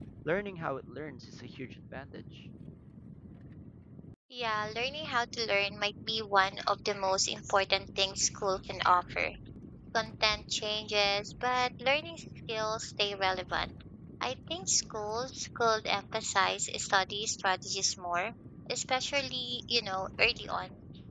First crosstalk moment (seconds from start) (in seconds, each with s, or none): none